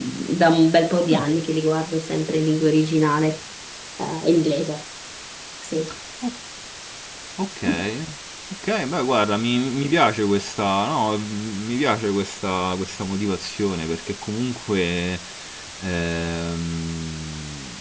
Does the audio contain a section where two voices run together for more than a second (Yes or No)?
No